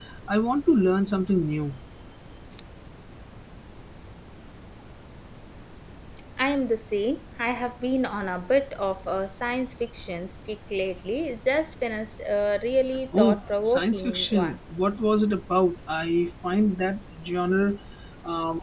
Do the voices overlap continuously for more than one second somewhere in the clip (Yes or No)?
Yes